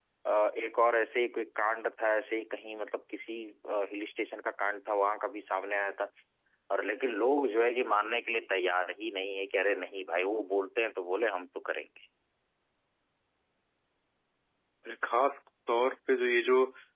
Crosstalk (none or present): none